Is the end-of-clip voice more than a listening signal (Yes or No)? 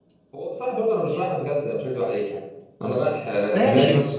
Yes